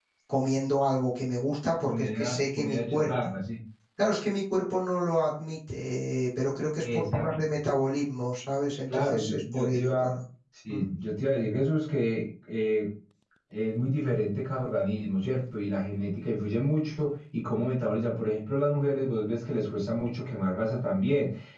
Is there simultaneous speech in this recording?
Yes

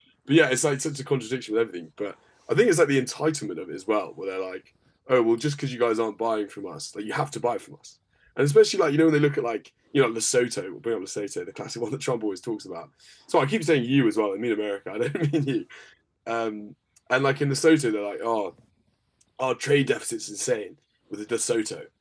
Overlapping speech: No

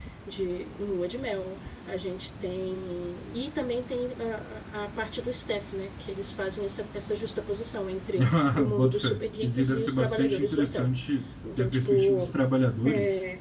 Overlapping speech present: Yes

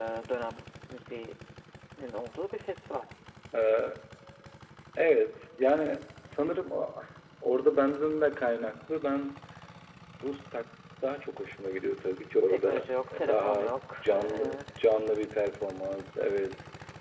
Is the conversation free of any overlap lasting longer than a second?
No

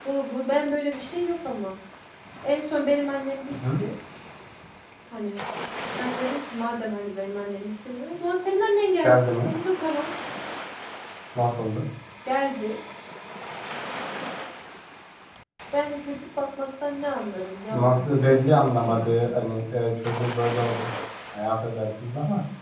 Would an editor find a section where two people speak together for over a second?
Yes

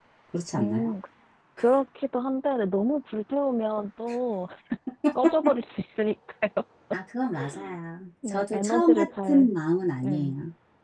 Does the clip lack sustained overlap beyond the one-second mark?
No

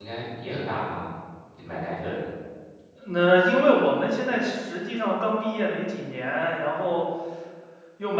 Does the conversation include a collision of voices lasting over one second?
No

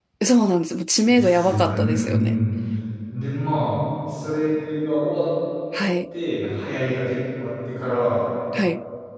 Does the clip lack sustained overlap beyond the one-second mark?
No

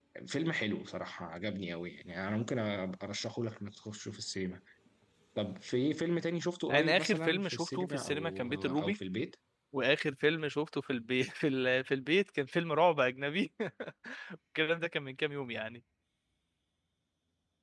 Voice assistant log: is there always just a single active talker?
No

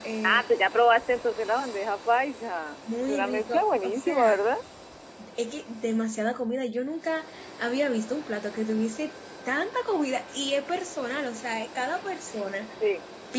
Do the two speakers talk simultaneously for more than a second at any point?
Yes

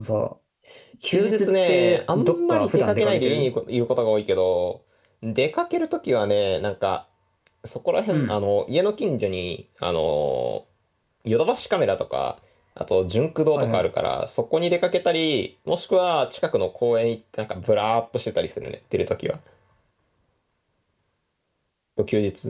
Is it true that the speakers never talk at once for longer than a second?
No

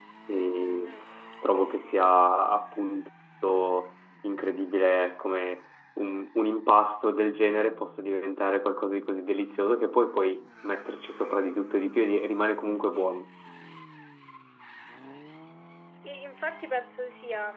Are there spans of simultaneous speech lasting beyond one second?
No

